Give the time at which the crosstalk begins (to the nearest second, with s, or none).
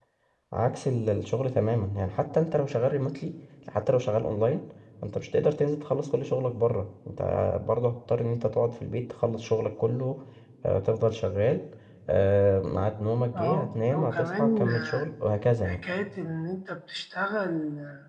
13 s